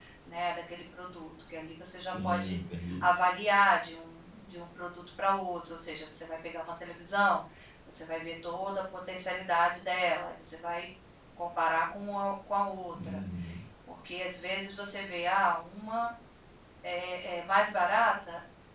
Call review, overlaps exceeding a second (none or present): none